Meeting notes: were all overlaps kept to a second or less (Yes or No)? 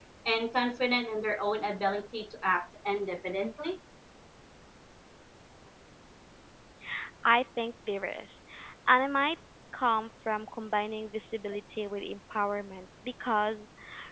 Yes